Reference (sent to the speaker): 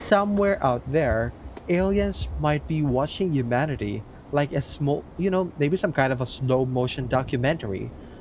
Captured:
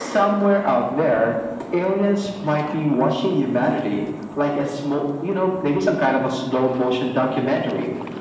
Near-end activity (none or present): none